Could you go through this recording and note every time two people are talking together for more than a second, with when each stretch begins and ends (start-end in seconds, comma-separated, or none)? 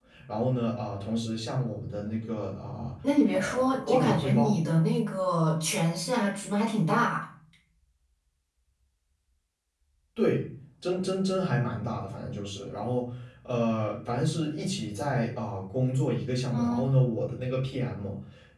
3.3-4.5